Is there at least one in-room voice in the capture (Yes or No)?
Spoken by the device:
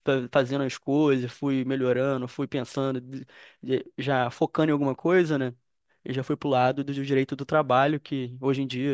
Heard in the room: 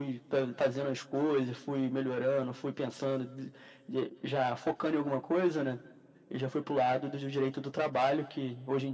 No